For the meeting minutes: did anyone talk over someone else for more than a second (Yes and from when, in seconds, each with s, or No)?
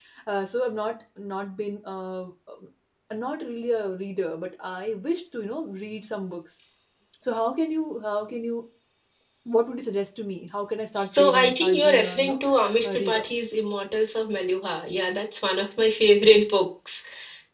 Yes, from 10.9 s